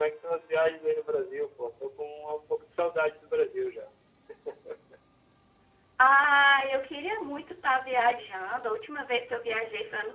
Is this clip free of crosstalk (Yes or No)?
Yes